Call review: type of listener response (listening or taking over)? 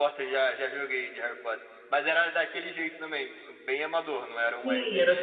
taking over